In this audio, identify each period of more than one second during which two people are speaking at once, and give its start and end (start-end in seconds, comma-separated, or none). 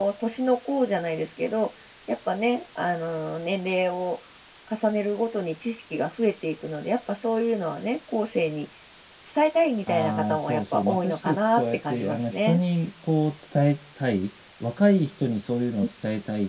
9.9-12.6